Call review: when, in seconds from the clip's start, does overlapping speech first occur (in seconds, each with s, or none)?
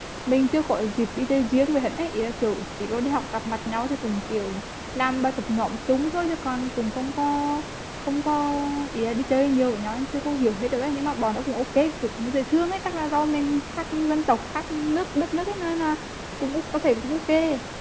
none